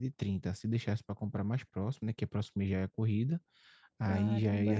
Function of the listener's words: taking over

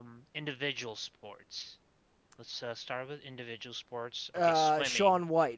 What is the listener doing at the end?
taking over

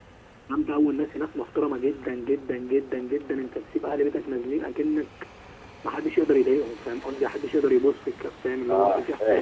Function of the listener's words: taking over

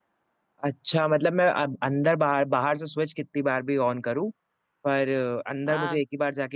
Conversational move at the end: listening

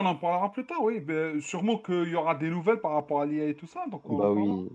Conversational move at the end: taking over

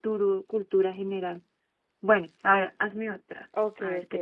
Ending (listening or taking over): taking over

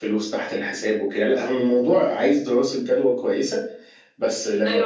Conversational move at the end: taking over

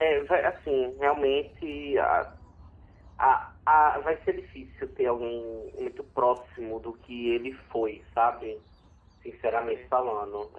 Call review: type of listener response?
listening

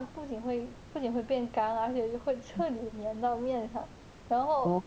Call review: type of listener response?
listening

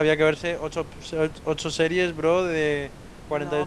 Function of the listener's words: taking over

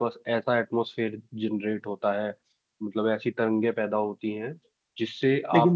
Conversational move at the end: taking over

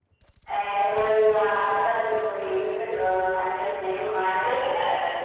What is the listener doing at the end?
taking over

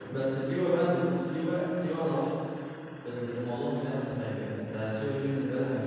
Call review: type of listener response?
listening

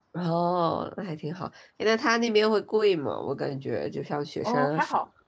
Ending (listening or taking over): taking over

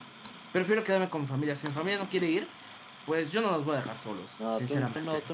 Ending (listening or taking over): taking over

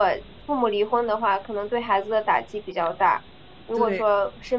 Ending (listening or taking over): listening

